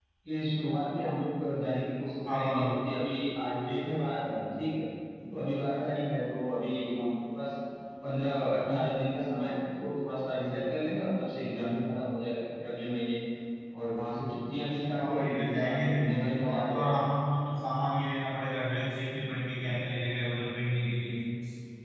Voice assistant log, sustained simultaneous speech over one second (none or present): present